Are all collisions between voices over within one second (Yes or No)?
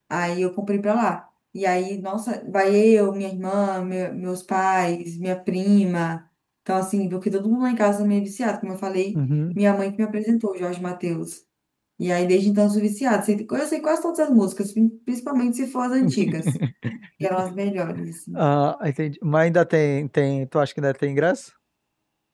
Yes